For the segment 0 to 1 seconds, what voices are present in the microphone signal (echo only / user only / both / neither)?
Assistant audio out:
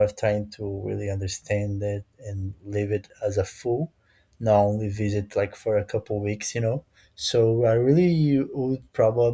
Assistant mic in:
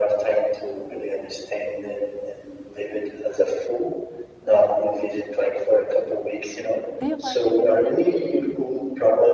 echo only